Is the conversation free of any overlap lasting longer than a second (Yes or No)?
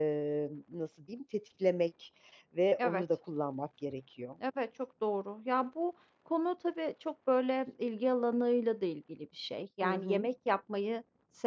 Yes